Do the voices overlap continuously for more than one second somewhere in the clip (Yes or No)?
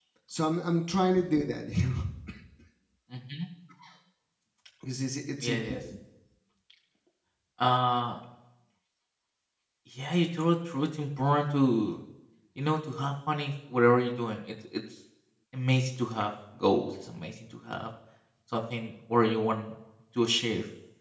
No